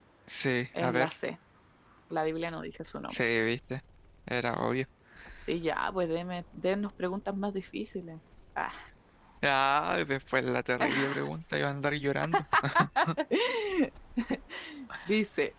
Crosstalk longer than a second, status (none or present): none